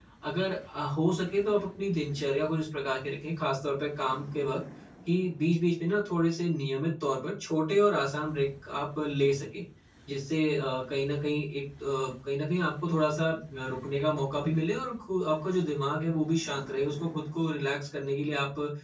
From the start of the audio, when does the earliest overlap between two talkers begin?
none

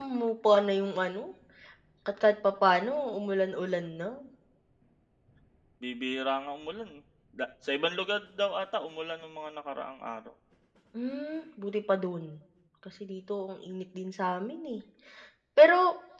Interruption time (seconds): none

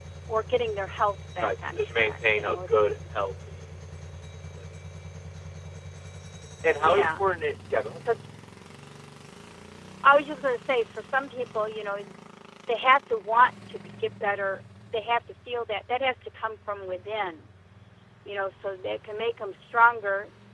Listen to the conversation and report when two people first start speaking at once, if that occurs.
1.4 s

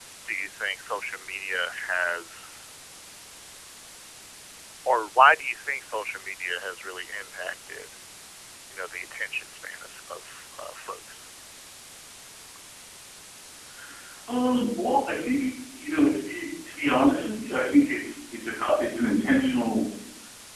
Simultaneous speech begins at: none

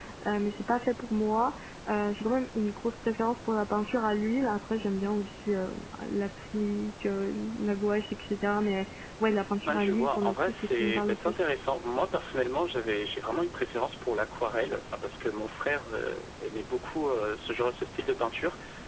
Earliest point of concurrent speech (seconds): 9.6 s

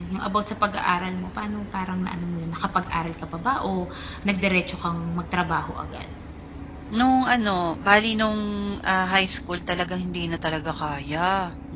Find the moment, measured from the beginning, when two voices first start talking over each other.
none

